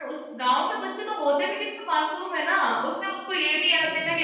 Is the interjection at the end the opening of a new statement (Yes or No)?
No